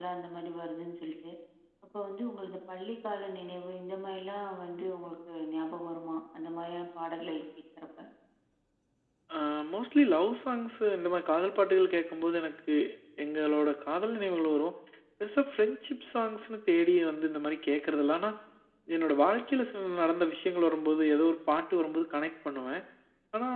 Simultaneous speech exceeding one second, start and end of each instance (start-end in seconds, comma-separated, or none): none